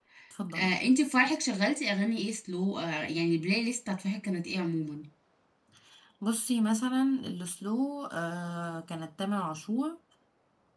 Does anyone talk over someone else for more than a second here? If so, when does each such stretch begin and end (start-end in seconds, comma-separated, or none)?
none